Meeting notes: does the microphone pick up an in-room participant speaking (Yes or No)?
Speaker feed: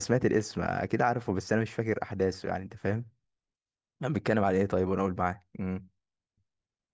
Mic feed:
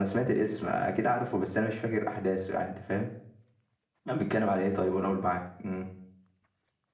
No